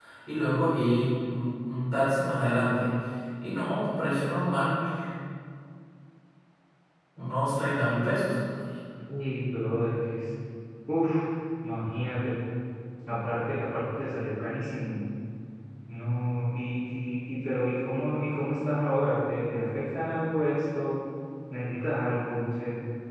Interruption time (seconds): none

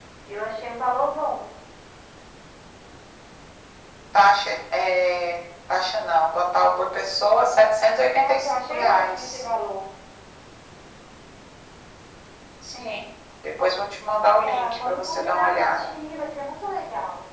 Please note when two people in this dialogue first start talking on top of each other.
8.1 s

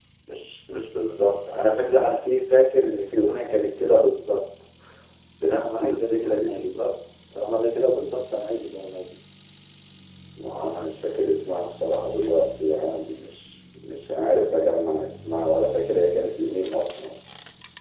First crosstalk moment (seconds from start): 5.5 s

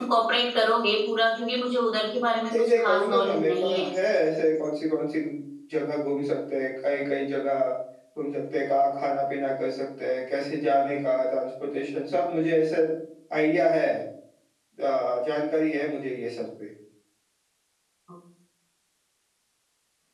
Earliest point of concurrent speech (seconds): 2.5 s

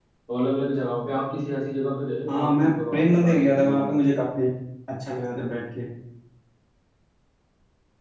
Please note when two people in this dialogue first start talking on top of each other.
2.3 s

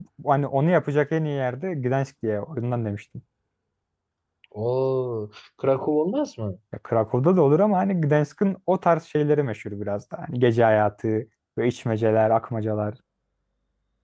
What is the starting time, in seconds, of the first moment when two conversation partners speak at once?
none

